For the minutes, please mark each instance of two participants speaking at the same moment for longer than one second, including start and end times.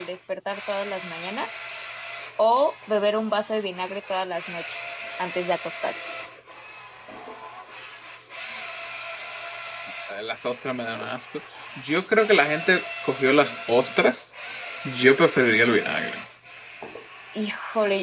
none

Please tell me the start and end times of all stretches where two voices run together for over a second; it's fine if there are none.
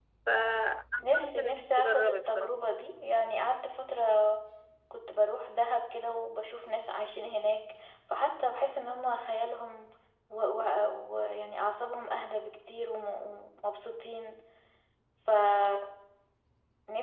1.0-2.5

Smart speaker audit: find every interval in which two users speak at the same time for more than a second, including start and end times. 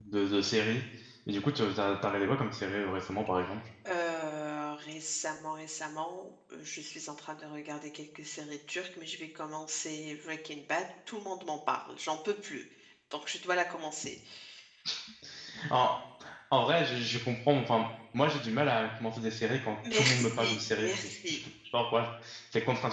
19.9-21.4

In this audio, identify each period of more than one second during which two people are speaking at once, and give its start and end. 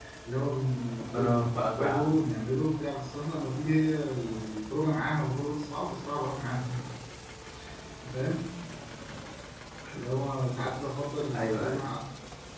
1.0-2.3

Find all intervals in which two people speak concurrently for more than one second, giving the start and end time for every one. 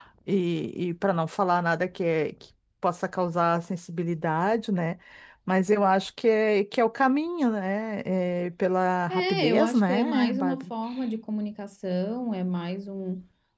9.1-10.6

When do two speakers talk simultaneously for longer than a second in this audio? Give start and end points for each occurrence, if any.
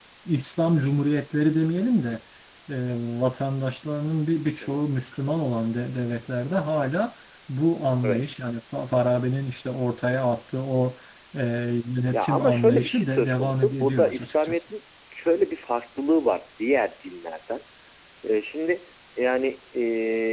12.1-14.6

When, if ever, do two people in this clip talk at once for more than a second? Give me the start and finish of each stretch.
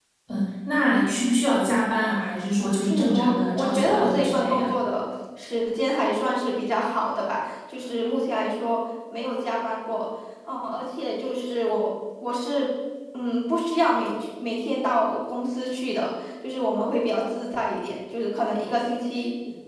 2.9-4.7

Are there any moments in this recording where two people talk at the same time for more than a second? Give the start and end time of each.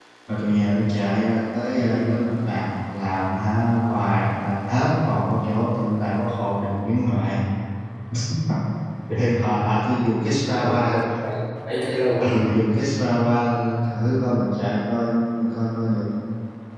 none

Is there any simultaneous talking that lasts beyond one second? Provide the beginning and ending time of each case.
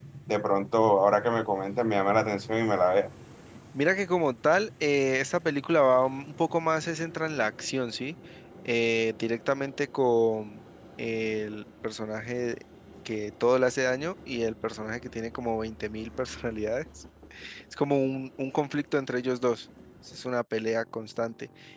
none

